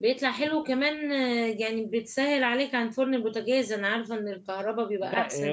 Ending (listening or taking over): taking over